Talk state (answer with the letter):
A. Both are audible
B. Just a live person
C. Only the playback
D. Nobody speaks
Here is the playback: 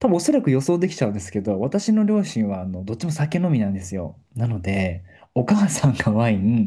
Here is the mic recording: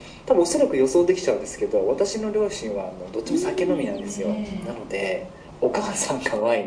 A